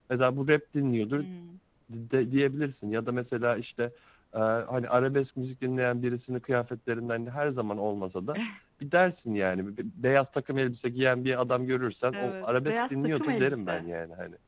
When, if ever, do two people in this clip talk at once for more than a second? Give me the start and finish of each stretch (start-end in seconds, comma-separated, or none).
12.1-13.8